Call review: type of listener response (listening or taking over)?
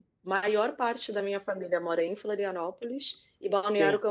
listening